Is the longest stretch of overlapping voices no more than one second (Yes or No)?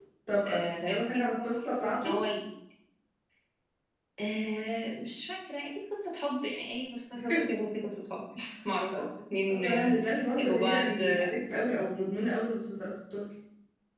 No